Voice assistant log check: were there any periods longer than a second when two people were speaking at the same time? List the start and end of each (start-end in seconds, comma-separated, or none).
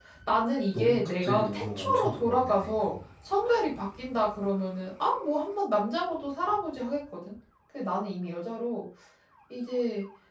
0.7-3.0